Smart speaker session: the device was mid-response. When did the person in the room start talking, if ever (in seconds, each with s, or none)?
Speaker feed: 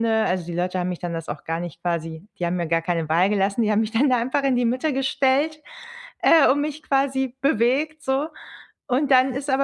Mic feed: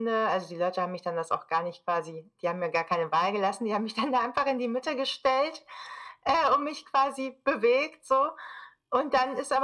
none